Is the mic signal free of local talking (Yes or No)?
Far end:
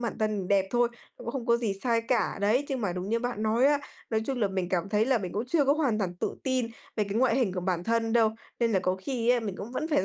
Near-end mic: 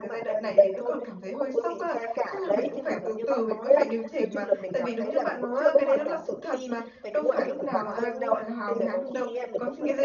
No